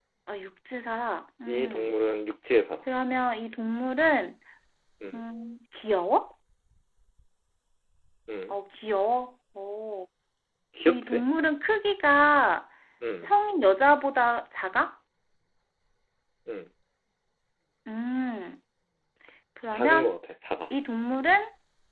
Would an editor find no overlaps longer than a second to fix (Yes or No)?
Yes